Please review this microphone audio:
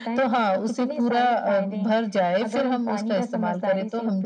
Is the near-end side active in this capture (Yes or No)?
No